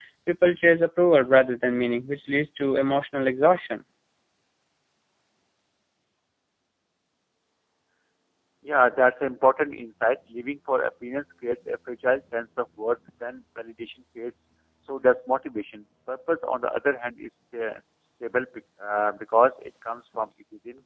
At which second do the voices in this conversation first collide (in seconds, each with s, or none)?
none